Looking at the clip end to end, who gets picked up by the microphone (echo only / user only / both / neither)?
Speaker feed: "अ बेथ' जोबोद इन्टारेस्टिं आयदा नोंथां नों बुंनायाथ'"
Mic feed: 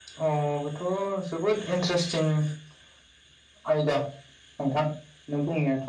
echo only